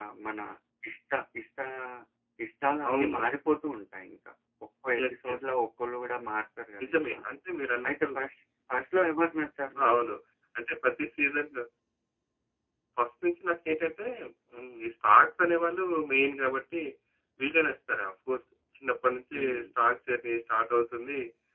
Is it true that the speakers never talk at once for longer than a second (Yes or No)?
Yes